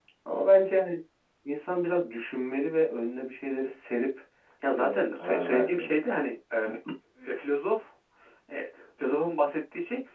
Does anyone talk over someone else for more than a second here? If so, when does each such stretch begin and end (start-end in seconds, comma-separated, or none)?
4.8-6.0